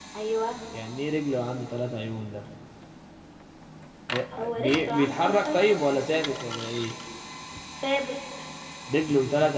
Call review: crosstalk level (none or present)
present